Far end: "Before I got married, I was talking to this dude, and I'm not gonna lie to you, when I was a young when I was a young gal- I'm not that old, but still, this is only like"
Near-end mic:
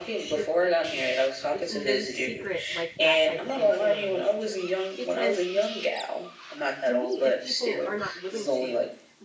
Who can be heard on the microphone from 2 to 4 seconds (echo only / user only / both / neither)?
both